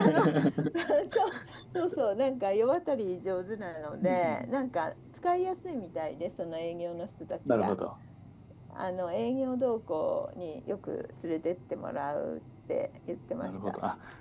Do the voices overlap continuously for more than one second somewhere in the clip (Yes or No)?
No